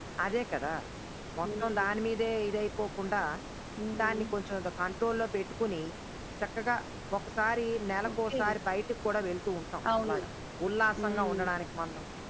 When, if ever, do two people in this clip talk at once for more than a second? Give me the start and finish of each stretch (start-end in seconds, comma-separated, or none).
none